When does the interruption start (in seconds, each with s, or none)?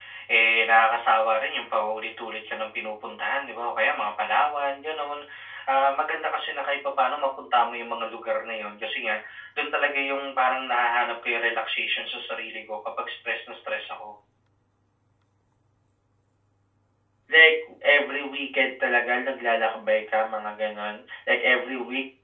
none